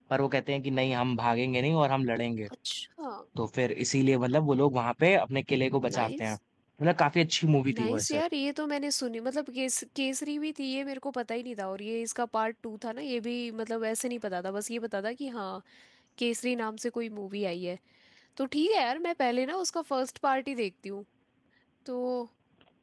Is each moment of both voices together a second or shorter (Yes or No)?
Yes